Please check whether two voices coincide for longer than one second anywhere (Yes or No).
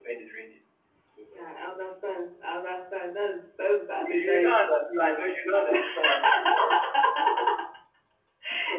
Yes